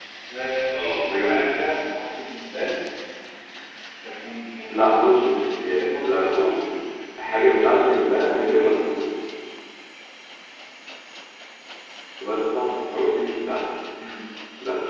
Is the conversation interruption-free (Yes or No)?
No